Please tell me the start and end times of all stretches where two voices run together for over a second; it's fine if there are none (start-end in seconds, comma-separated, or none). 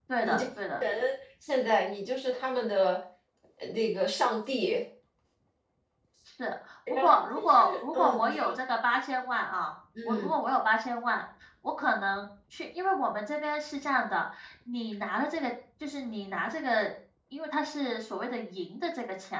6.9-8.6